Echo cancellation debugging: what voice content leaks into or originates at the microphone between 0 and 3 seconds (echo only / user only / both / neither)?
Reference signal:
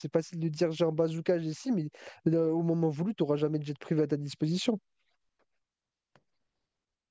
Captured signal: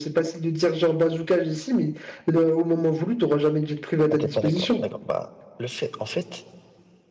echo only